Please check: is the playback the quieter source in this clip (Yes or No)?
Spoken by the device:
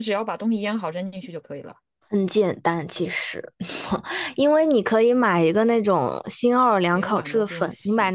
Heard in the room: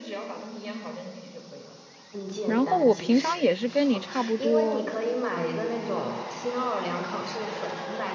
Yes